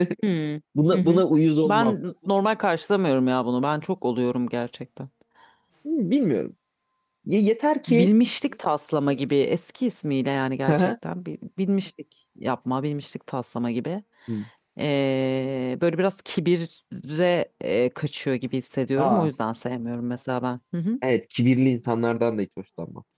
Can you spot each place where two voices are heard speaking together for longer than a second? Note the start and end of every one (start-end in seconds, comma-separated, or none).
none